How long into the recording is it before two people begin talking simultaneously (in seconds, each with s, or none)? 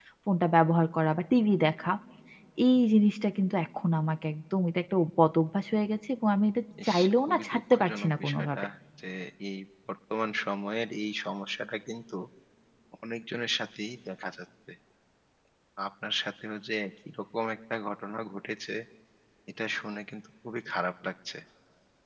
6.8 s